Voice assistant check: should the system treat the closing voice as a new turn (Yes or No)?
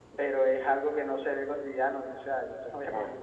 No